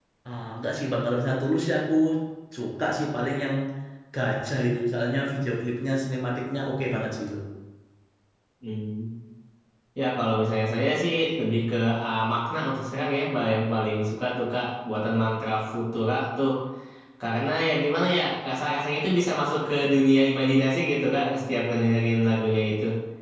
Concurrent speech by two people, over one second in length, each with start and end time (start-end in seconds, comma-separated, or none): none